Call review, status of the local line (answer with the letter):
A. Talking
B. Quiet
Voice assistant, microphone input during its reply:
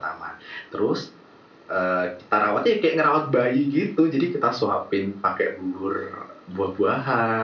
B